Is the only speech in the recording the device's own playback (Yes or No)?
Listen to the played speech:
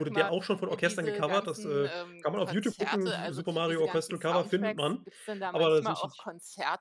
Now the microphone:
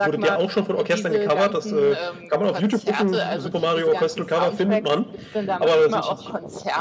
Yes